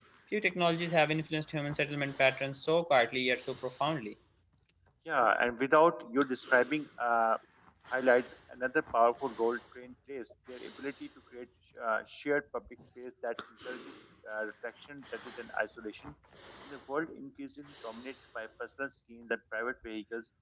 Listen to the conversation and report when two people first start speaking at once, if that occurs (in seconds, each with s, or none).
none